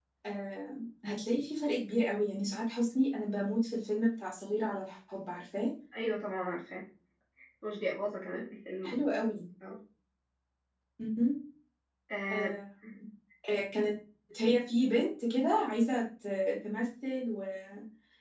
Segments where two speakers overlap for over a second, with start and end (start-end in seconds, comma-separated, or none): none